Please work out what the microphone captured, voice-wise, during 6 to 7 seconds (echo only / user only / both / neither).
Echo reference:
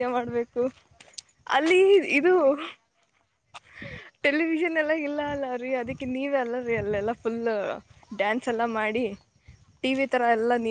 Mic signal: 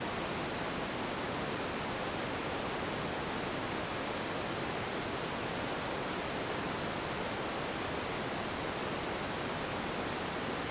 neither